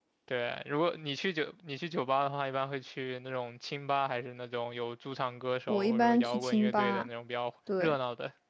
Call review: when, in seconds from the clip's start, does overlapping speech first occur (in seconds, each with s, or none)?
5.7 s